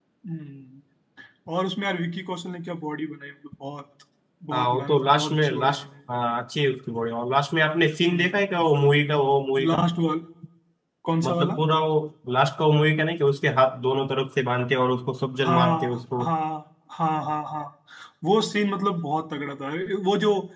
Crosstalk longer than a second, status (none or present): present